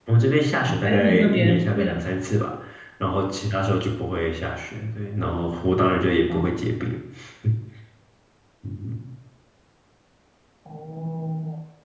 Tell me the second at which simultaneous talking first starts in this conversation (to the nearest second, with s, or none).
1 s